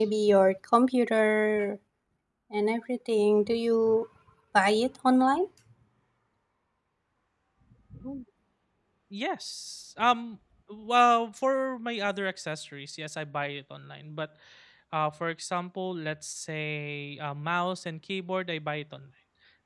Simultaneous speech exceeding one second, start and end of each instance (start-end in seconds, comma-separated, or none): none